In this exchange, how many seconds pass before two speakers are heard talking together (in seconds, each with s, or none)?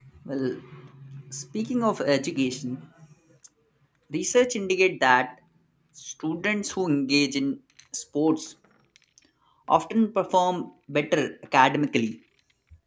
none